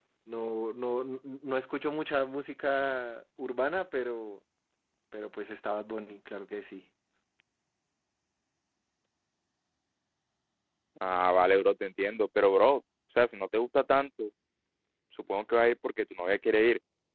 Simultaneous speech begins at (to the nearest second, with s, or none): none